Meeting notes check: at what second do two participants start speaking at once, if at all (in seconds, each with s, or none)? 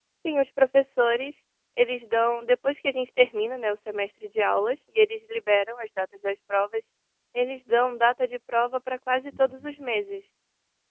none